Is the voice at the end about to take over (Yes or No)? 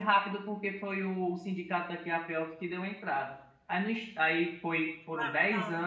No